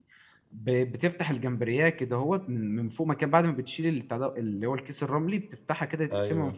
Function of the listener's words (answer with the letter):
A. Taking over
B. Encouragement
B